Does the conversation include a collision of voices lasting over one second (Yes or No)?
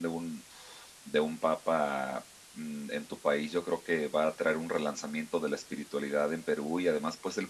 No